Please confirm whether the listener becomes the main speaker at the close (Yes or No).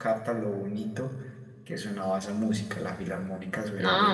Yes